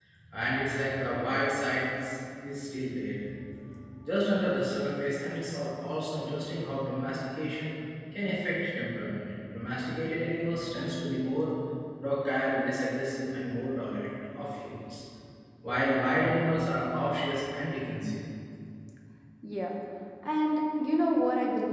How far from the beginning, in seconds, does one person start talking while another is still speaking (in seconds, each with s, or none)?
none